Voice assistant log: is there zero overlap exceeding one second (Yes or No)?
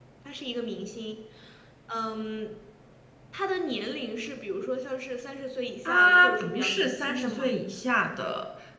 No